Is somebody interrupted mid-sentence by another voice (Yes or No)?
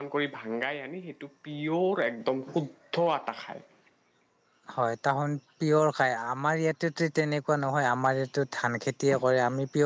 No